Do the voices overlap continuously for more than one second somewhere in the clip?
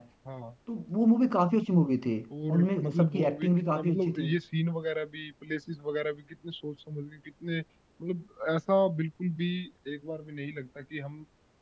Yes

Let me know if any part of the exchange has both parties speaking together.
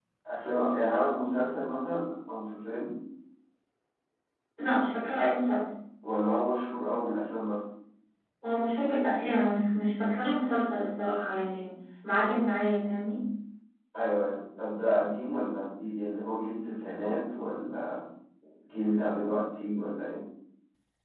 No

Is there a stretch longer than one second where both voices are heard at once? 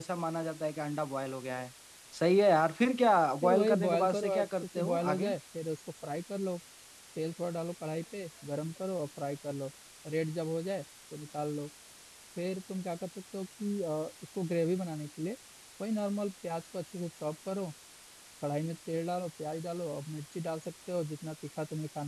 Yes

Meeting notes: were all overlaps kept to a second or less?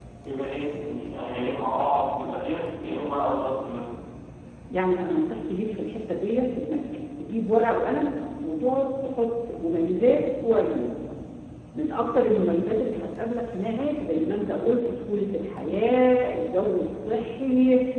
Yes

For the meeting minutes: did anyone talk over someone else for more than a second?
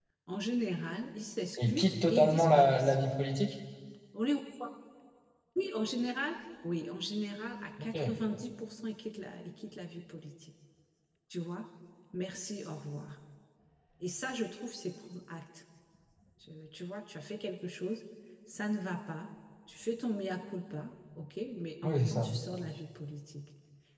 Yes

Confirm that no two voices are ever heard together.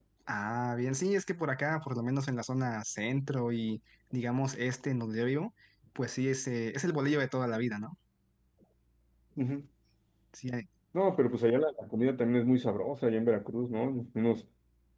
Yes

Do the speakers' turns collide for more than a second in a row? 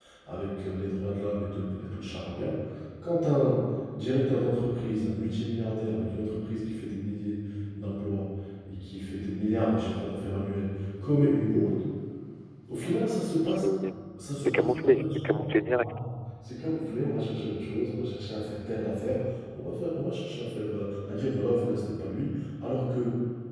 Yes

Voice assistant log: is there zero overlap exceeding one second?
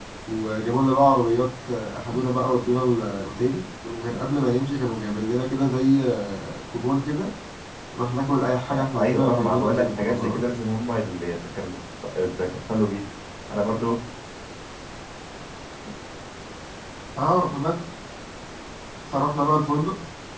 No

